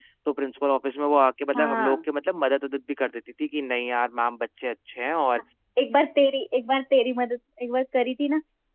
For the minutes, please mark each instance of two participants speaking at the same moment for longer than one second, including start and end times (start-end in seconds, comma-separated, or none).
none